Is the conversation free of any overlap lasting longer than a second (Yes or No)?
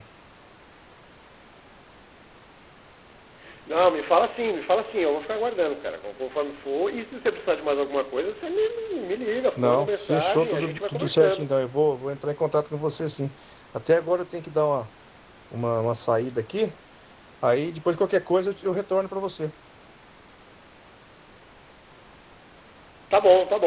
No